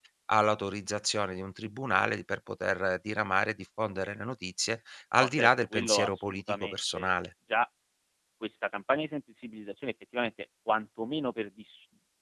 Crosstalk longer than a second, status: present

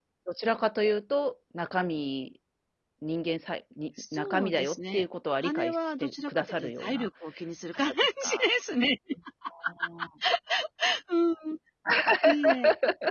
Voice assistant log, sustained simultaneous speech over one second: present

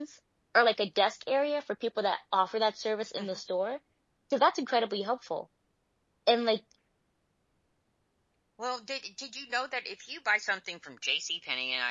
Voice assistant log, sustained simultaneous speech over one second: none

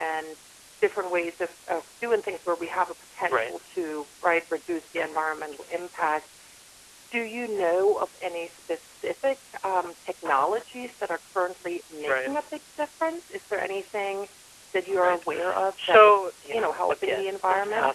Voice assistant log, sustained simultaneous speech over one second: present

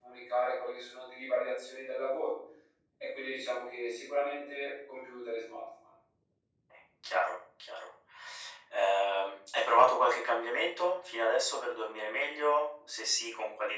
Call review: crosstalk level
none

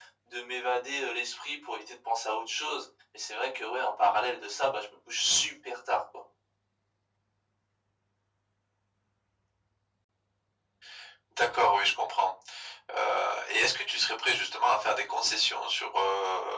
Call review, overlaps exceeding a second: none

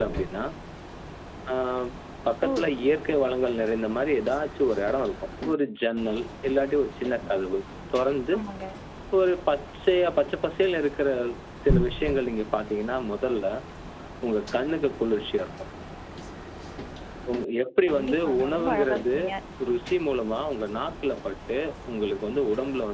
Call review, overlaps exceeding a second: present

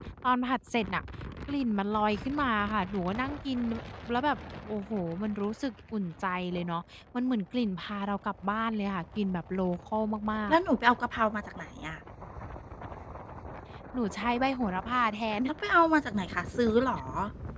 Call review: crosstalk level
none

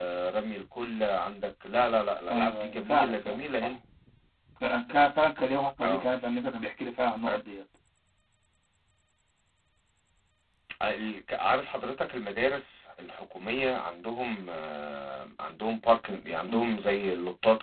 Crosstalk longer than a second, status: present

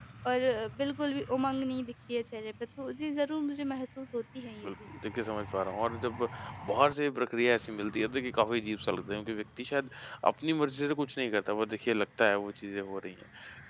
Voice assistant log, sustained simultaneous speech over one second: none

